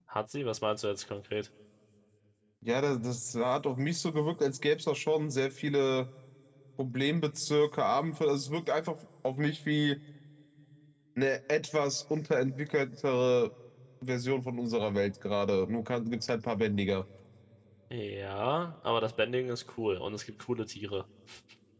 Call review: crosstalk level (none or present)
none